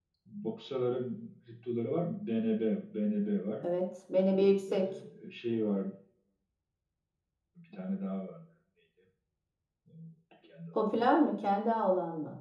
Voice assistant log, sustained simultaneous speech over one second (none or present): none